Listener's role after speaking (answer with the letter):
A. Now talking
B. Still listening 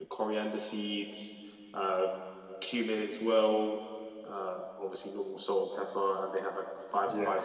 B